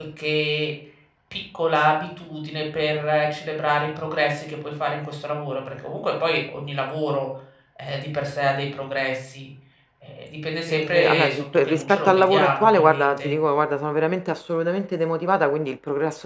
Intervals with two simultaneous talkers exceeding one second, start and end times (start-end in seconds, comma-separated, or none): 10.7-13.3